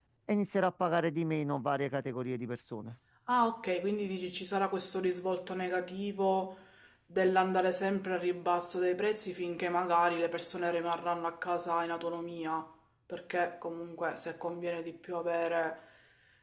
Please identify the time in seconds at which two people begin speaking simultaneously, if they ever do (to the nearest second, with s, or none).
none